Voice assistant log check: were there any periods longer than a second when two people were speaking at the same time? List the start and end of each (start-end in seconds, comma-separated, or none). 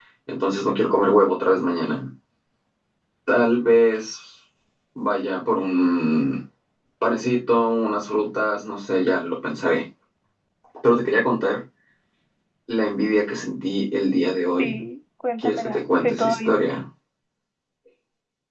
15.4-16.8